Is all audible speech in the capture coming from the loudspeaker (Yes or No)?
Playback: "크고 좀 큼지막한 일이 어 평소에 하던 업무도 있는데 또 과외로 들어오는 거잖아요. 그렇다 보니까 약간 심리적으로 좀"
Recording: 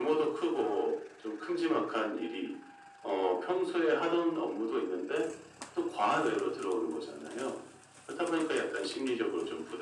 Yes